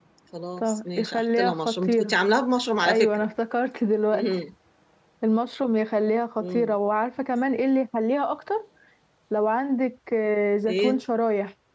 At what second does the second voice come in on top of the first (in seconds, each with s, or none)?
0.6 s